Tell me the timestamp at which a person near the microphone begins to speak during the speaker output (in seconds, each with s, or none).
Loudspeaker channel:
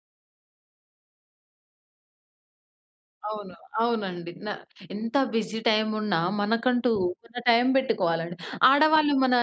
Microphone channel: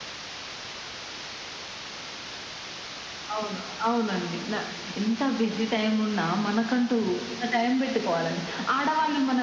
none